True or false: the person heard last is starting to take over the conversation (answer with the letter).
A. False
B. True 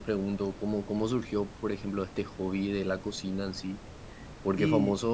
A